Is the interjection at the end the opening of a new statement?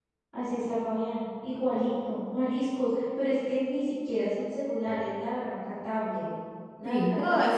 Yes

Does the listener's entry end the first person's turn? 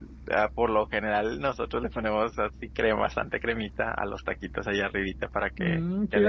Yes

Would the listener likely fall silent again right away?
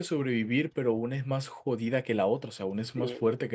No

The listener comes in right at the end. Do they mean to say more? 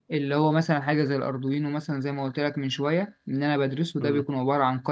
No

